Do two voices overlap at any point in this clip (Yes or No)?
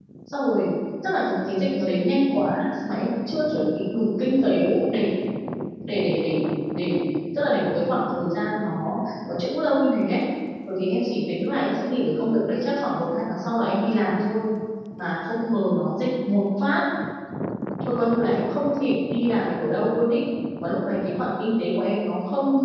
No